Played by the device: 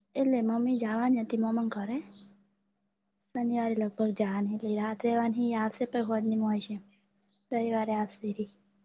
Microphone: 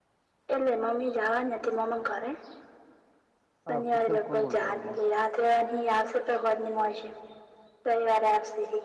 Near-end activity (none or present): present